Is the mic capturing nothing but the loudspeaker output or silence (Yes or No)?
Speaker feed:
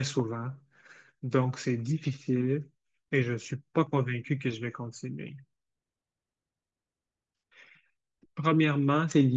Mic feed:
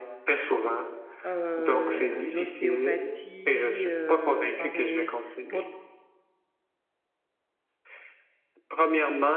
No